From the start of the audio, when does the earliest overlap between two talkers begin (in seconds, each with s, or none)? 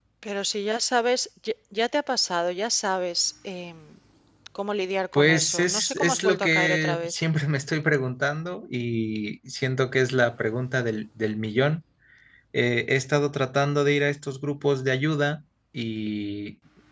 5.1 s